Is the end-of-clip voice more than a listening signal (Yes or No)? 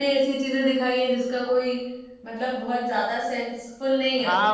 Yes